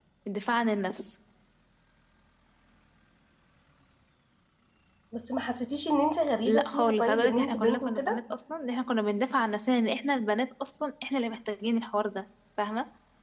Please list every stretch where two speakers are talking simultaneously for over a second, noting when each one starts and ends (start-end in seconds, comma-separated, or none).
6.4-8.2